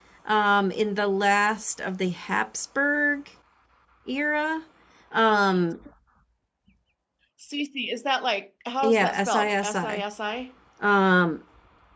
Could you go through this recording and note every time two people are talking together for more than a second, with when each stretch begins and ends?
8.8-10.0

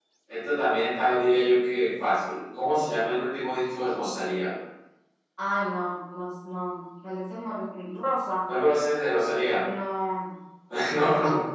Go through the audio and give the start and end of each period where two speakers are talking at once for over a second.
none

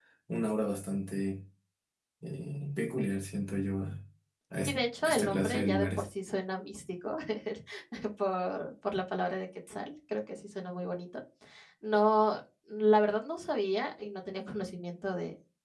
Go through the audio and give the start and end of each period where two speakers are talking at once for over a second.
4.7-6.0

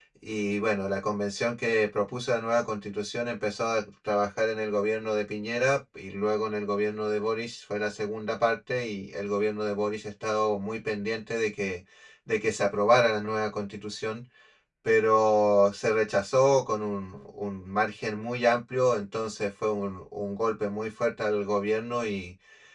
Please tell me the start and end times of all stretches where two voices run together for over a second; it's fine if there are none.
none

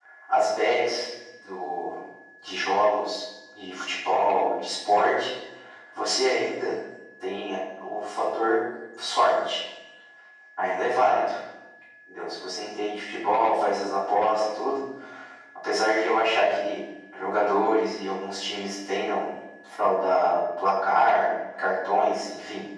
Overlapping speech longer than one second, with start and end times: none

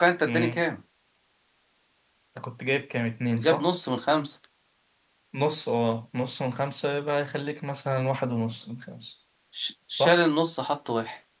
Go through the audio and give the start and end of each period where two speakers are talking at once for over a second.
none

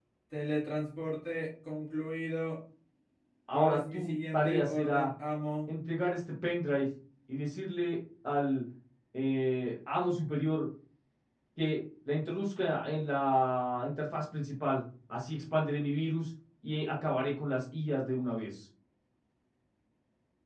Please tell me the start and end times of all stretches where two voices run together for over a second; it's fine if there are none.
3.5-5.1

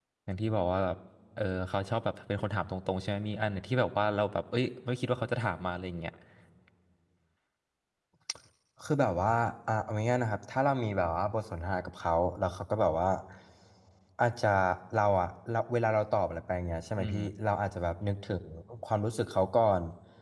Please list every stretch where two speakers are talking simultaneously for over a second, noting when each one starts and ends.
none

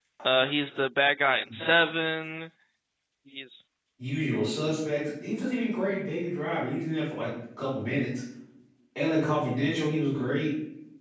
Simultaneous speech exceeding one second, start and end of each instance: none

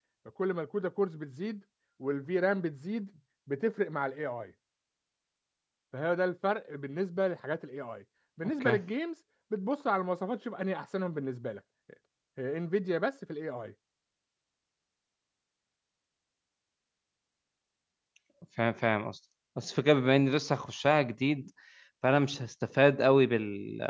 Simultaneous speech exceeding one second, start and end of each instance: none

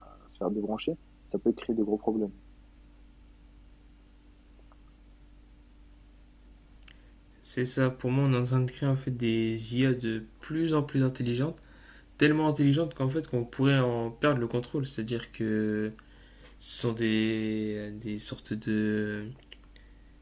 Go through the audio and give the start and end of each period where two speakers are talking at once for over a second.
none

